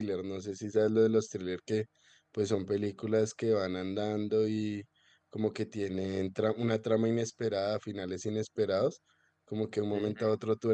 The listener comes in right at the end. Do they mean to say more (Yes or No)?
No